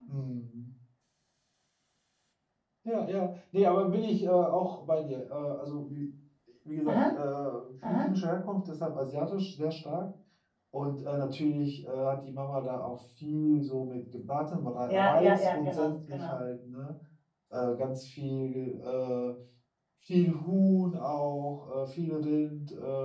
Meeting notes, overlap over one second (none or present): present